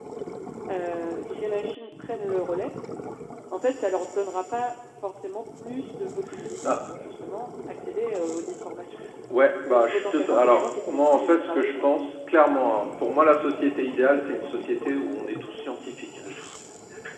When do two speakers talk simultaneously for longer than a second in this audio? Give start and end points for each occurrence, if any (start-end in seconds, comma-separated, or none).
9.6-11.8